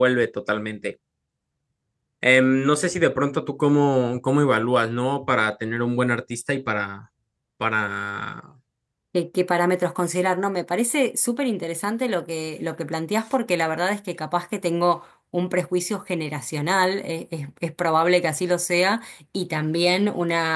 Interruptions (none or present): none